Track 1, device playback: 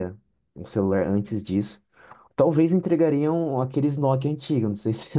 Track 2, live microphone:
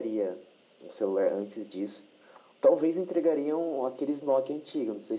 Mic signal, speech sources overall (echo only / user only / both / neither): echo only